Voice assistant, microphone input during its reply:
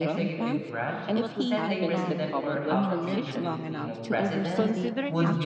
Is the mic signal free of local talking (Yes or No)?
No